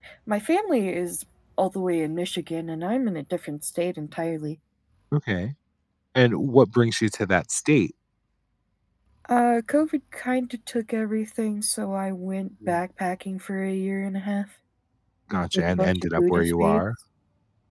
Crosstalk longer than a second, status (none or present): present